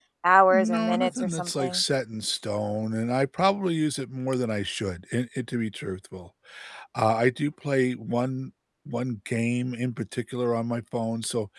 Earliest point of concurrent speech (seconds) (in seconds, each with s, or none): 0.5 s